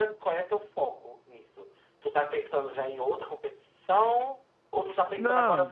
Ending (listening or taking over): listening